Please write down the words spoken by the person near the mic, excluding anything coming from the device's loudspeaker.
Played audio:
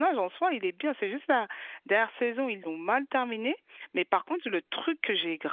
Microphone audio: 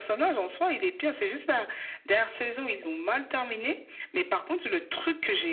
none

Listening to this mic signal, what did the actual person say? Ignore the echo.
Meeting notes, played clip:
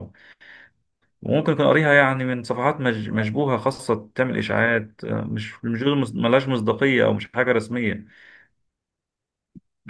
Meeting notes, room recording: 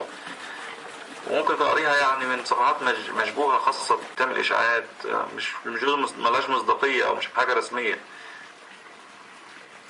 none

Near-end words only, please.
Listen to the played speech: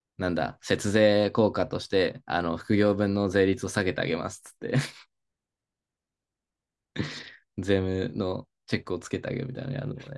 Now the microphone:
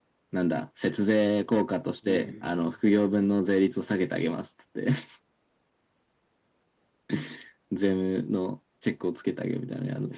うん。

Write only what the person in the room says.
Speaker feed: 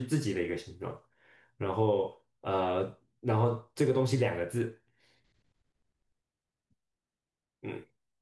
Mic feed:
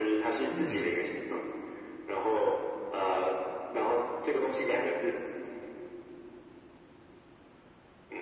嗯，

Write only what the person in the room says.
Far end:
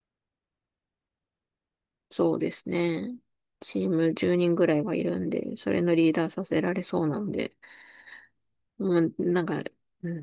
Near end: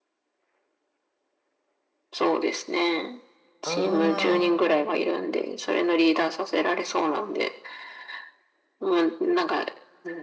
うん、

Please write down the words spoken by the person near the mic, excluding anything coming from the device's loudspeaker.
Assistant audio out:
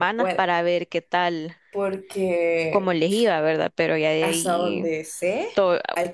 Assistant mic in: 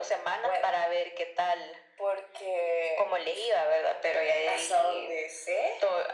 none

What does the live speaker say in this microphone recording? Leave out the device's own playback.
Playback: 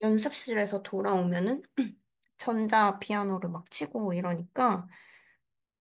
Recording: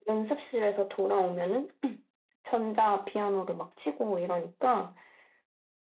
none

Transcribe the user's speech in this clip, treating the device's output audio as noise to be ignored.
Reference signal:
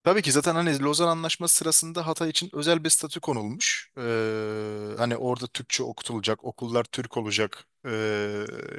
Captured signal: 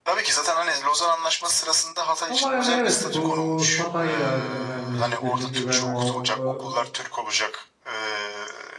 Ama hani evet bu Hatay da hani önemli. Dediğin gibi hani o, o

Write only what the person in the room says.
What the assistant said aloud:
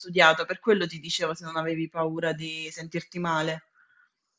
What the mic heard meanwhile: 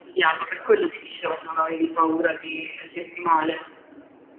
none

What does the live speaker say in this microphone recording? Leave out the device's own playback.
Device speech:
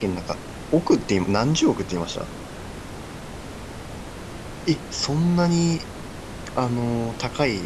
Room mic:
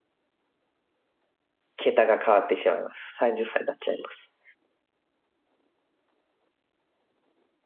桁が変わってしまいます。30歳になっちゃいます。

